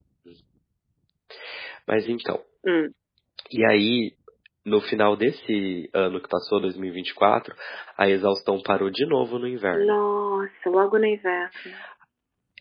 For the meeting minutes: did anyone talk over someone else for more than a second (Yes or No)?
No